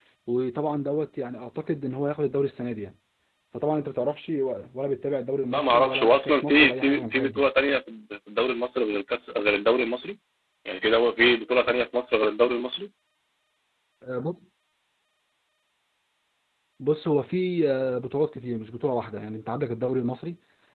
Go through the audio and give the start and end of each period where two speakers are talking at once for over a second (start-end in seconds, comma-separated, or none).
5.5-7.4